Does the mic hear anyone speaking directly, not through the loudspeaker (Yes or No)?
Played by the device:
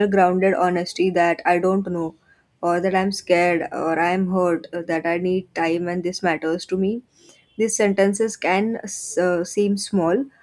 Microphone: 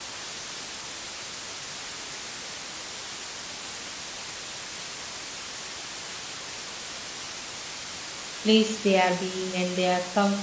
Yes